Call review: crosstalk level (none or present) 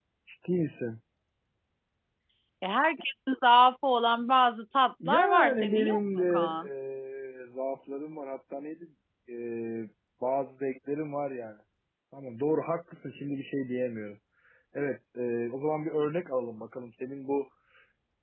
present